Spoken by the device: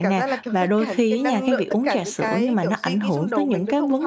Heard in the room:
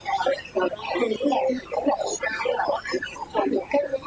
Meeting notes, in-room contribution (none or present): none